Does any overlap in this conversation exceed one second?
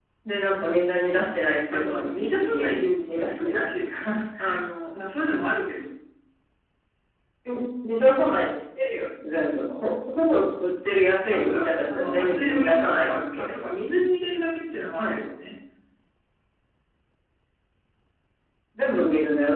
Yes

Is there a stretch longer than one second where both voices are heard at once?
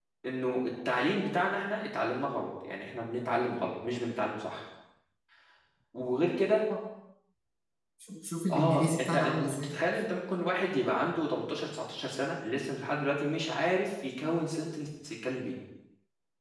Yes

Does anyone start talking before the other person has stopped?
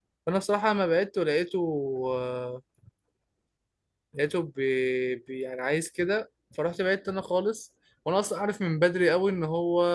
No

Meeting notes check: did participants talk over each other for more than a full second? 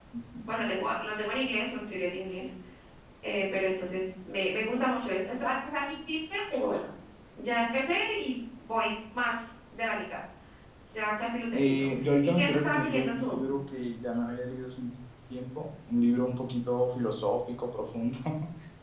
Yes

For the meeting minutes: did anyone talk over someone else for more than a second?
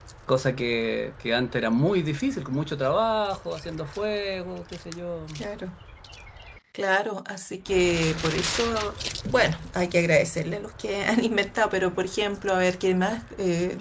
No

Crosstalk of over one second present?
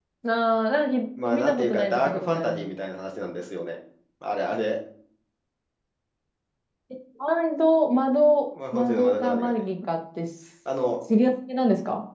Yes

